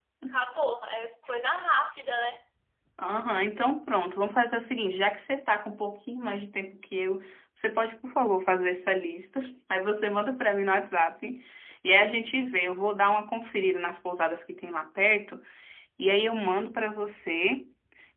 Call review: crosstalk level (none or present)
none